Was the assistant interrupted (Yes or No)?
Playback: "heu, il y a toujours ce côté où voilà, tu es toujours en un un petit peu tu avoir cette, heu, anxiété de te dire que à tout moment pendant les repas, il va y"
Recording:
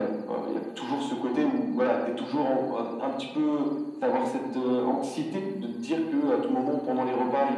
No